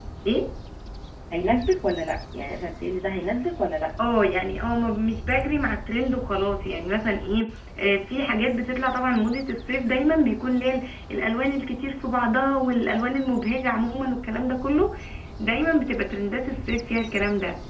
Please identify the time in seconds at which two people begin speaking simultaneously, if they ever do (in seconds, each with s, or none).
none